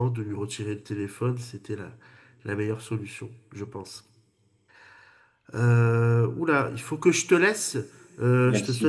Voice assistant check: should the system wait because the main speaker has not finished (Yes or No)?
Yes